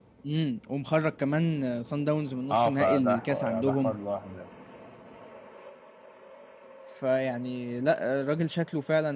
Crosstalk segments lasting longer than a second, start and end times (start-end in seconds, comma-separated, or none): 2.5-4.0